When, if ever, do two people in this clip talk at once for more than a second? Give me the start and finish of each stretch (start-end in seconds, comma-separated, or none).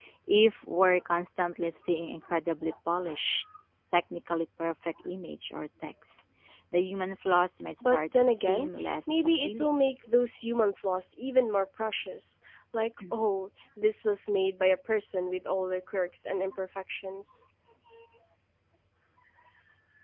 7.8-9.8